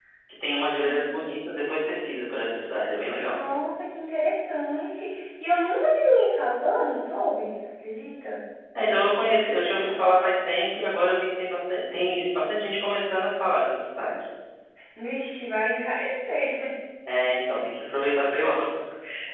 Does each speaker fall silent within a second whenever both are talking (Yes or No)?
Yes